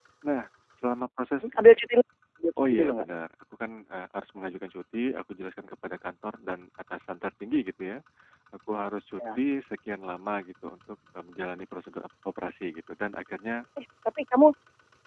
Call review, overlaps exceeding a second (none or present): none